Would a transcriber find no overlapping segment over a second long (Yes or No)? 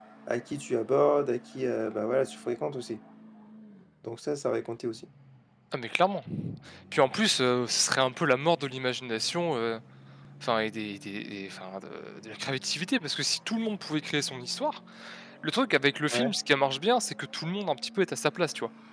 Yes